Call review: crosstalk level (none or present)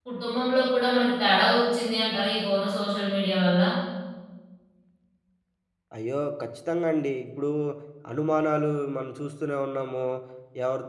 none